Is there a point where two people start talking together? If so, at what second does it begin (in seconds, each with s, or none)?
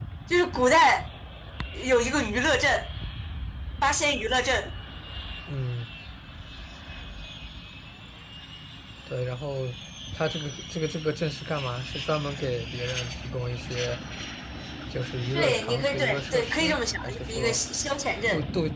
15.3 s